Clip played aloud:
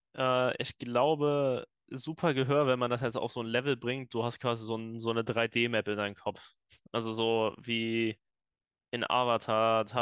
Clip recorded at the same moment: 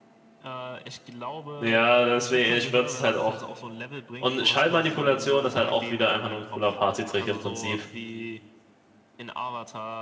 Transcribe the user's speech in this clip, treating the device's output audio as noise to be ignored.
Ja, deswegen, ich würde es halt auch. Und Schallmanipulation ist halt auch wieder einfach nur ein cooler Partytrick im Prinzip.

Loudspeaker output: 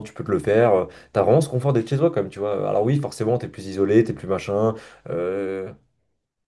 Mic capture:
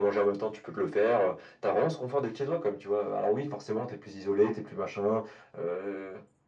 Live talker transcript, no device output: none

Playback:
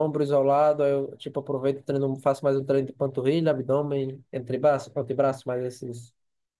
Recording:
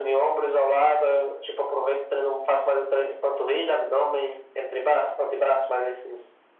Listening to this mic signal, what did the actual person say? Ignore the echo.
none

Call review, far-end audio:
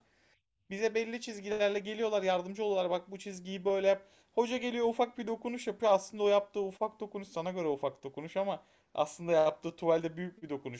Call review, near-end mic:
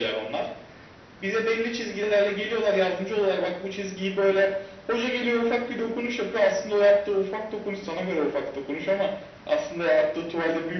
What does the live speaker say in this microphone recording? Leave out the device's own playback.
none

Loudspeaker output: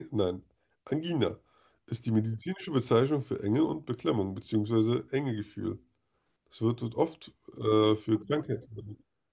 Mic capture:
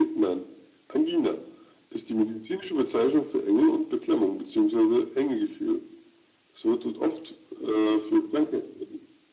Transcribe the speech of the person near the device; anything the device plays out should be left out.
none

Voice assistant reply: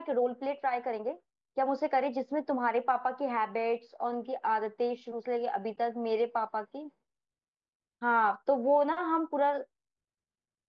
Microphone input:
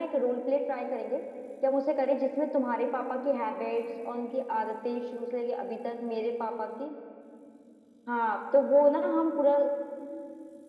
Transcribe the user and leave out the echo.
none

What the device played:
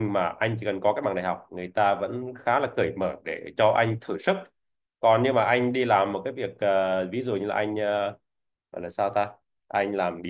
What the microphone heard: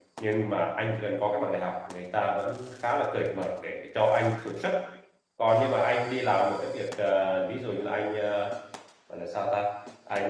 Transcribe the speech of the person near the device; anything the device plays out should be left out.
none

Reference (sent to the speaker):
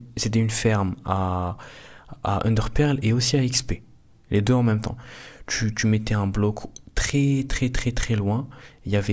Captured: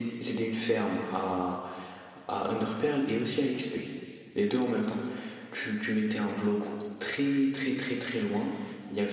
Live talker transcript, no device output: none

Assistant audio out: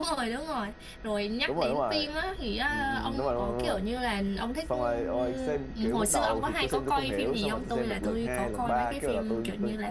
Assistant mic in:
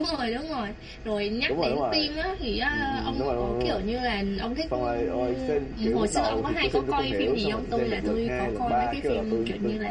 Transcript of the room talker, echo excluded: none

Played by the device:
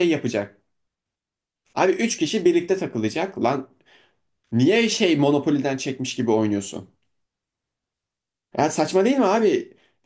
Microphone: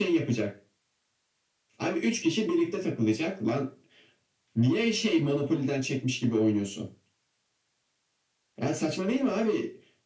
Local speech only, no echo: none

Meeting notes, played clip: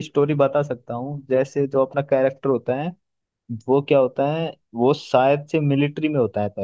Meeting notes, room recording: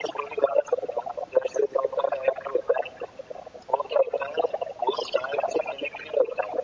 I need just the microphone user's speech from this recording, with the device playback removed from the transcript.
none

